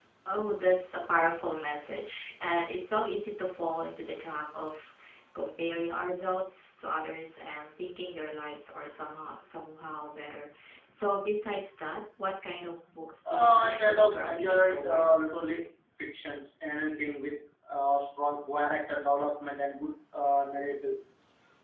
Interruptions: present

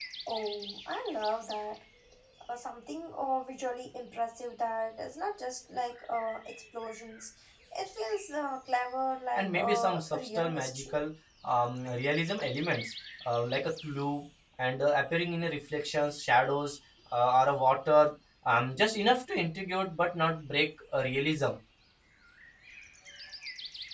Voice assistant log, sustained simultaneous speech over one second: present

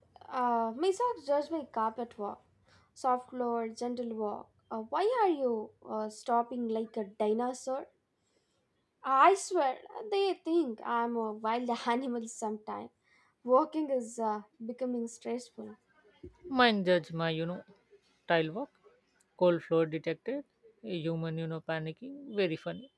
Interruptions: none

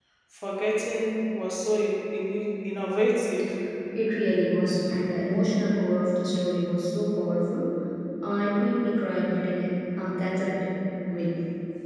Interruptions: none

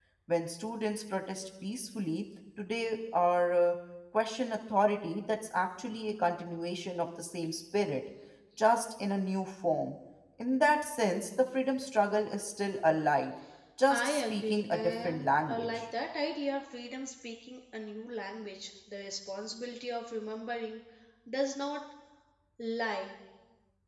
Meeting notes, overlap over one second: present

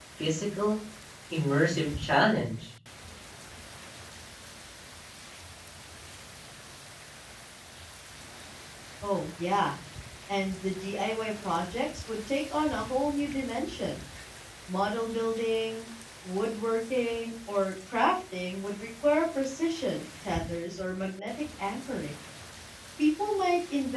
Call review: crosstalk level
none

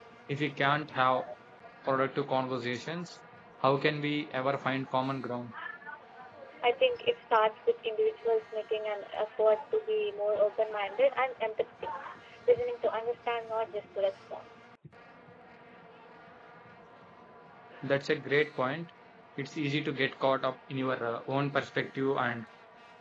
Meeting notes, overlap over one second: none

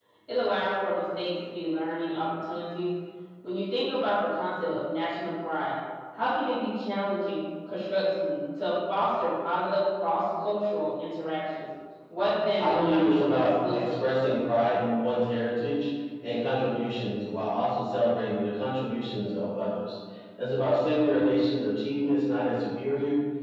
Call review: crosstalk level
present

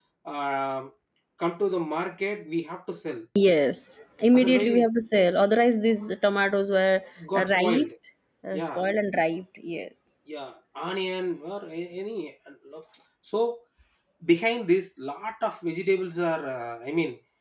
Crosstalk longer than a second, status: none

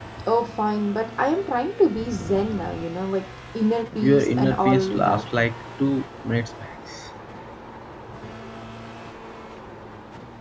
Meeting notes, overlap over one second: present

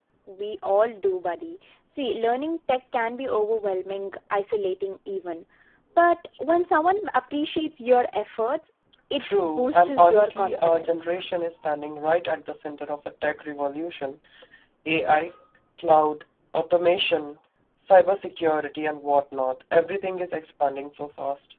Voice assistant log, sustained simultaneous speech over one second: present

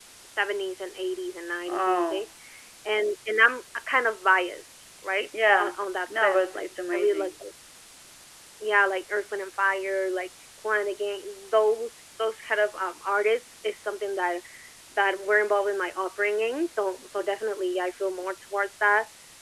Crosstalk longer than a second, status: present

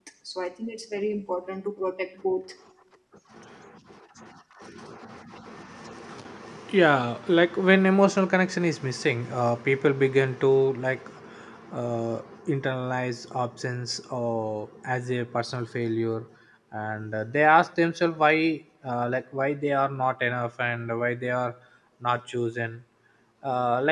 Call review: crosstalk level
none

